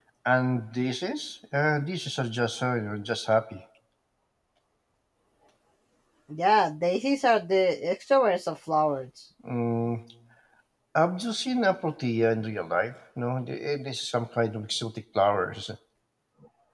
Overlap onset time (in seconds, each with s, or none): none